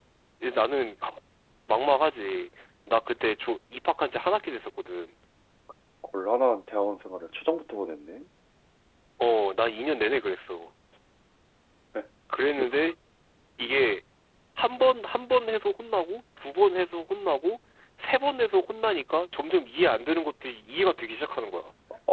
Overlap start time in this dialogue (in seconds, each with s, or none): none